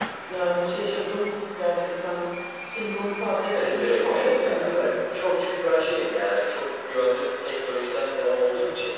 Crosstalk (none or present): present